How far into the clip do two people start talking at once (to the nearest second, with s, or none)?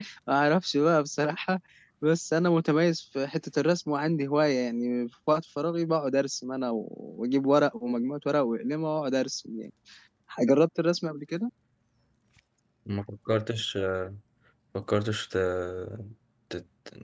none